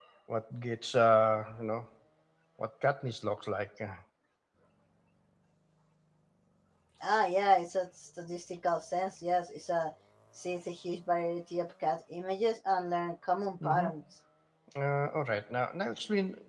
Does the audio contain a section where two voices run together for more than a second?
No

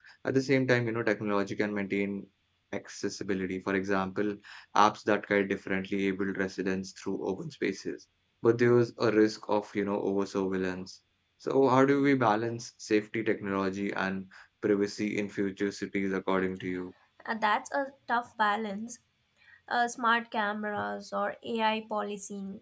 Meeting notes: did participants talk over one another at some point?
No

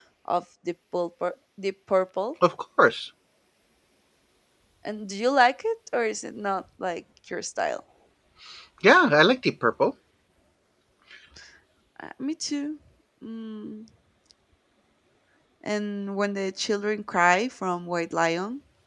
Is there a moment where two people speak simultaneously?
No

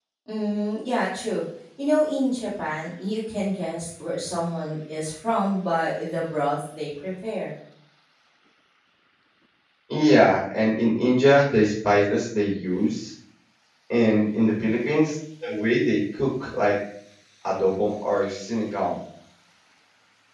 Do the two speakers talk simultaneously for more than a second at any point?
No

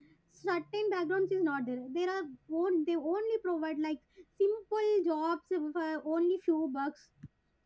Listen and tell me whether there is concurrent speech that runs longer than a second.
No

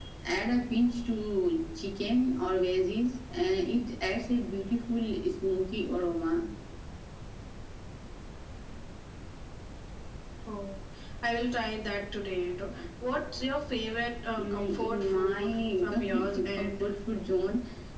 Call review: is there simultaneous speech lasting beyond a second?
Yes, from 14.4 s

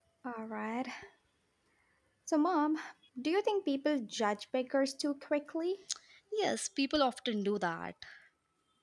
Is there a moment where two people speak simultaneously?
No

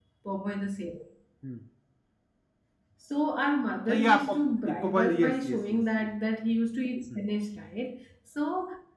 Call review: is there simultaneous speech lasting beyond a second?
Yes, from 3.9 s

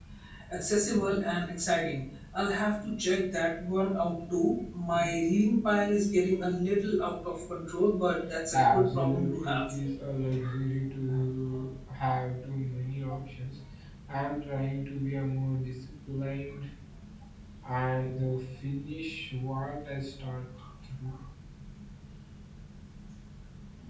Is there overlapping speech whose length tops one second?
Yes, from 8.5 s

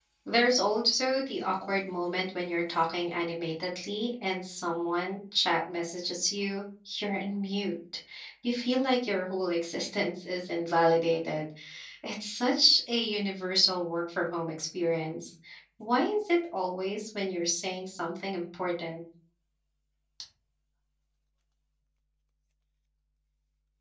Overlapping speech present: No

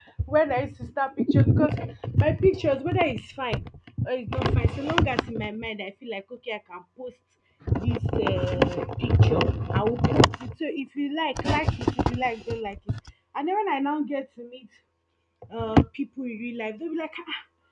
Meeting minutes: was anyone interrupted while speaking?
No

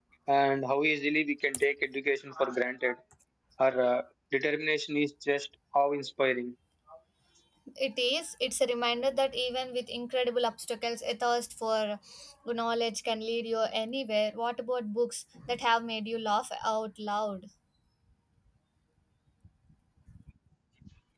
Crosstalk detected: No

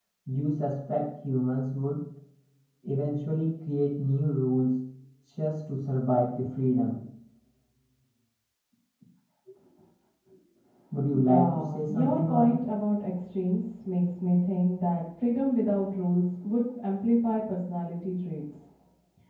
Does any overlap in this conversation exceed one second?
Yes, from 11.1 s

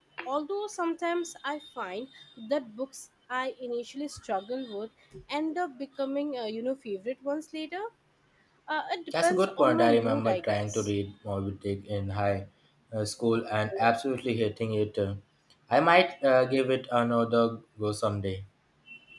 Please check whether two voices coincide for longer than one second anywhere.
Yes, from 9.1 s

